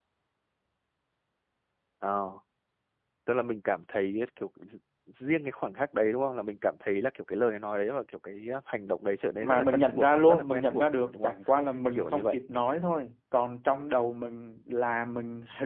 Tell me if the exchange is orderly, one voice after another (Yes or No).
No